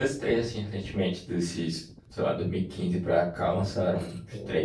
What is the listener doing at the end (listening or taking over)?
taking over